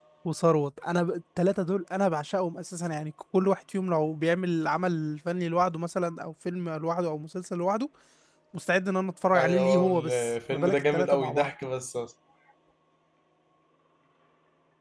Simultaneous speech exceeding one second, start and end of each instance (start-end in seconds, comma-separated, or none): 9.3-11.5